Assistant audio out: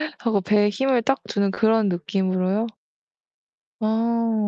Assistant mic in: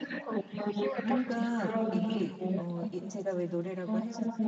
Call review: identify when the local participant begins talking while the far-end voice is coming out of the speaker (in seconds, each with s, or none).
1.0 s